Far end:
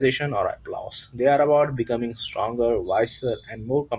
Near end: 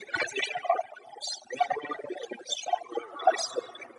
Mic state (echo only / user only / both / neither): both